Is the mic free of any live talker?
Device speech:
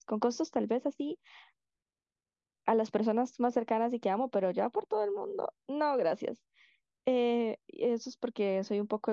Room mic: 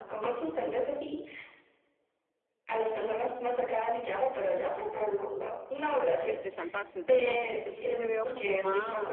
No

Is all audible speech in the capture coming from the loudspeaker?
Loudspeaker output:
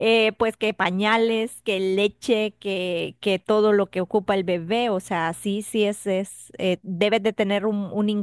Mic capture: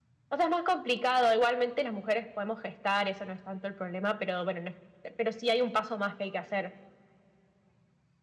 No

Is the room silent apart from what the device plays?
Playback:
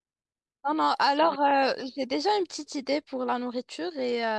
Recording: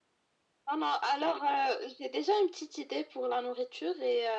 Yes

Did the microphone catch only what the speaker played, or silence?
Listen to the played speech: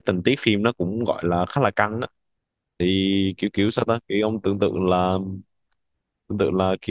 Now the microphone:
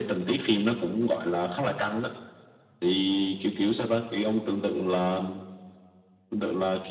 Yes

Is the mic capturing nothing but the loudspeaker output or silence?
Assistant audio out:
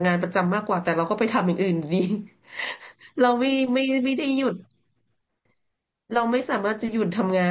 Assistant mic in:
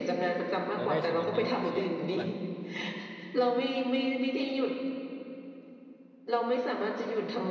No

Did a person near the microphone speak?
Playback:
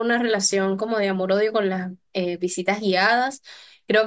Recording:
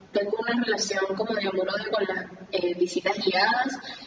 No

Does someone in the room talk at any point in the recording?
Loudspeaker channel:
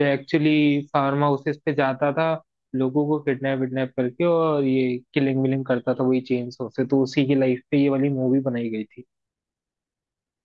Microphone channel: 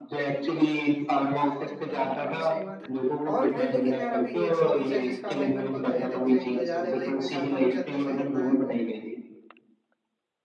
Yes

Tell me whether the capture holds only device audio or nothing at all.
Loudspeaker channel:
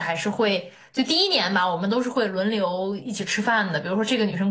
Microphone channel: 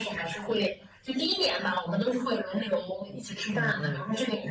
No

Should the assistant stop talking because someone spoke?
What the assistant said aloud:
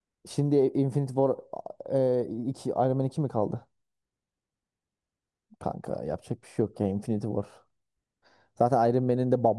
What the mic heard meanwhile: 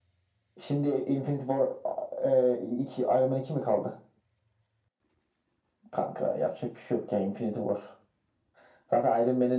No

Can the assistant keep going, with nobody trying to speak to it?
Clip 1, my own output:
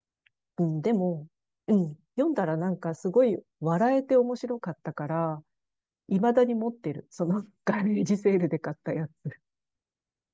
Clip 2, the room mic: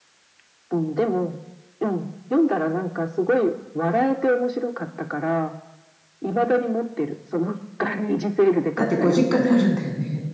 No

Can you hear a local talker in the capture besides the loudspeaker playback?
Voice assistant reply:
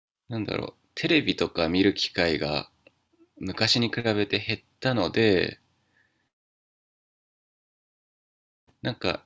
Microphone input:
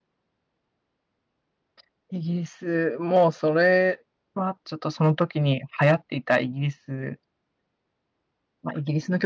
Yes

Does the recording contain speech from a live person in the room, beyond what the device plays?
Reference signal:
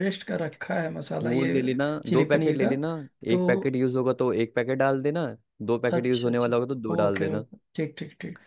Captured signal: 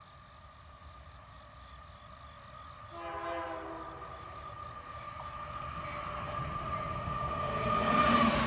No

